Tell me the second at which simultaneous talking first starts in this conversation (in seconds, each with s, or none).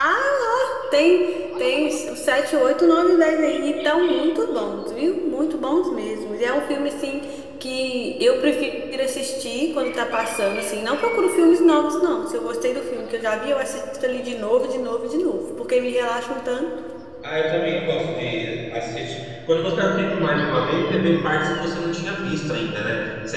none